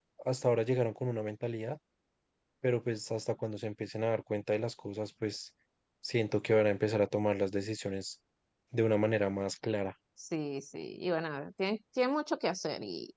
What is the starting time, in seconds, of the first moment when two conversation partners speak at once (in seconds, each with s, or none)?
none